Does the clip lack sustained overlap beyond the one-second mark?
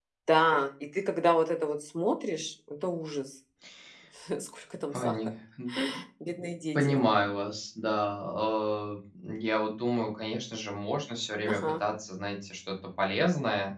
Yes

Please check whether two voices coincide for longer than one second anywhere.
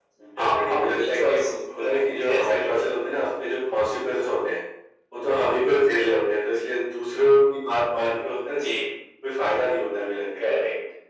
Yes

